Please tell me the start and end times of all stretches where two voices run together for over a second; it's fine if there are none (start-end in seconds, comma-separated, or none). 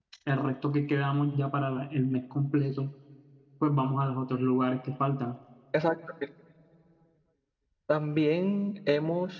none